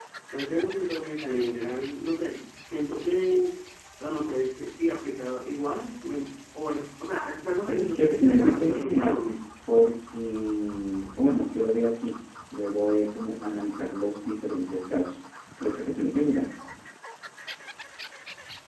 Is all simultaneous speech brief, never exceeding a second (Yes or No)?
No